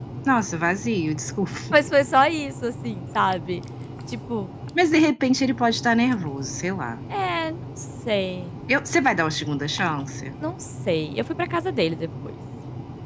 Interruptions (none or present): none